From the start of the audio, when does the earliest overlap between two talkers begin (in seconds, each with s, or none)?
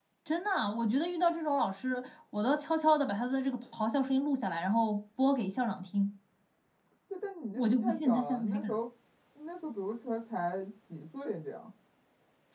7.5 s